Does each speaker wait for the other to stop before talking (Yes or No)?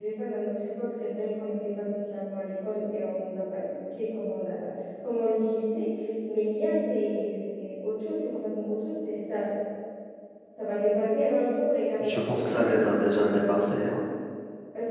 No